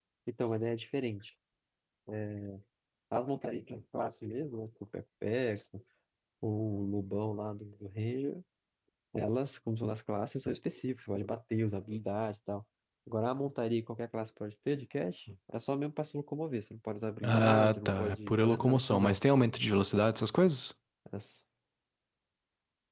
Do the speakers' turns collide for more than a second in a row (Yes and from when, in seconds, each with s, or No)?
Yes, from 17.2 s